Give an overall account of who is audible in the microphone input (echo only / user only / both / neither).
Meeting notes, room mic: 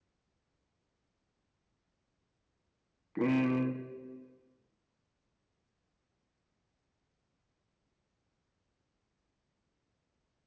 user only